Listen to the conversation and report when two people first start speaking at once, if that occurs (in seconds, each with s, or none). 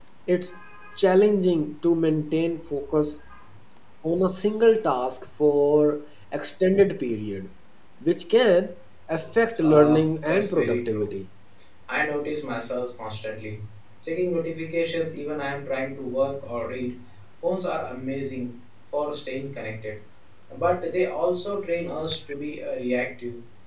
9.6 s